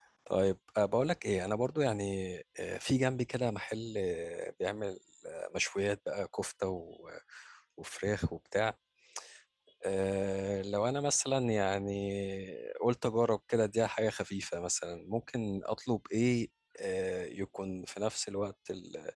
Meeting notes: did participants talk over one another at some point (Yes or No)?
No